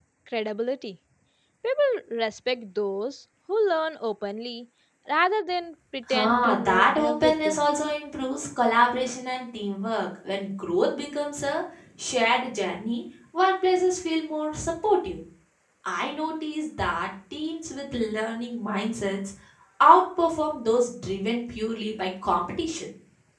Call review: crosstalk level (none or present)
present